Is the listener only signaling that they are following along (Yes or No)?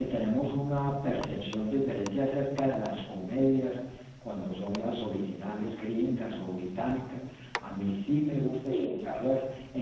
Yes